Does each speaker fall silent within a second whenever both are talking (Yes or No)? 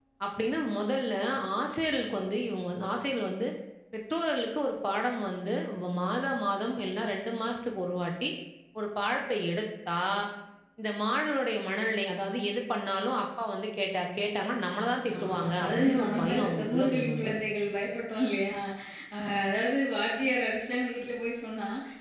No